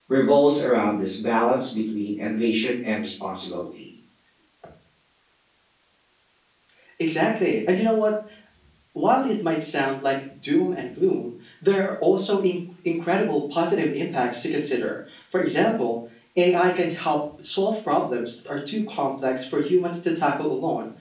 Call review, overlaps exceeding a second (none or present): none